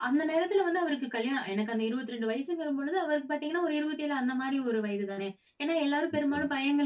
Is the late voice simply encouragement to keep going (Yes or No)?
Yes